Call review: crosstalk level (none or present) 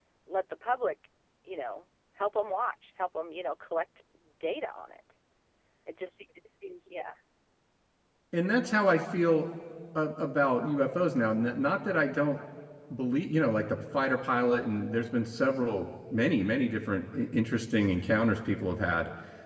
none